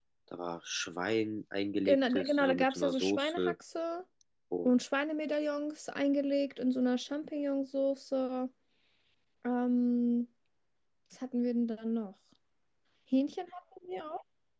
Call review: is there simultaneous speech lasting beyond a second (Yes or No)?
Yes